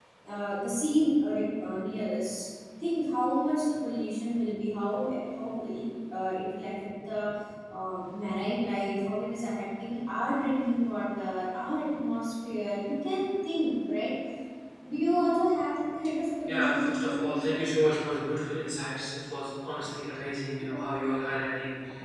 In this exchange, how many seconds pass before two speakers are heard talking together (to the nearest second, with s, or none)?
16 s